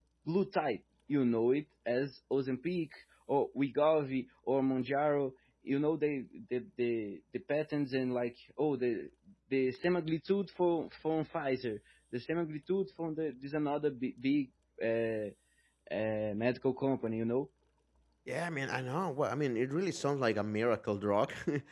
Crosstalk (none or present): none